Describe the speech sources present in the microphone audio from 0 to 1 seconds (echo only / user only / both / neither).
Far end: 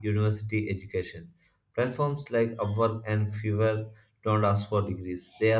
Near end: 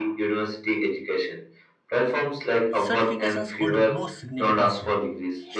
echo only